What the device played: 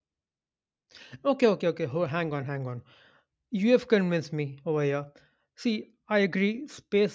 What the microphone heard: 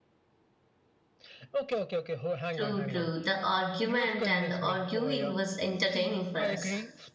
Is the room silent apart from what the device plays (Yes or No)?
No